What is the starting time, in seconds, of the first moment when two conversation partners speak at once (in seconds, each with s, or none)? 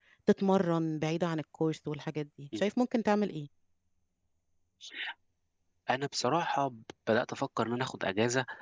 none